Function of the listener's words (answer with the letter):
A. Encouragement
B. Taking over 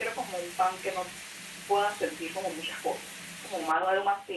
A